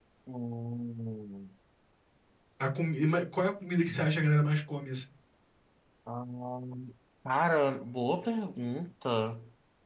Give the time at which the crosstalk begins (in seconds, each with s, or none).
none